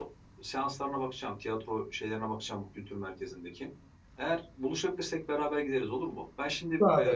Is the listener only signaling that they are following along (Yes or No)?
Yes